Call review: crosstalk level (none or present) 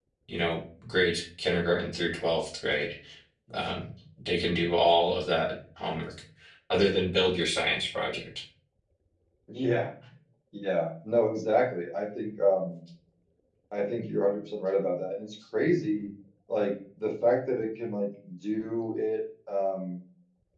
none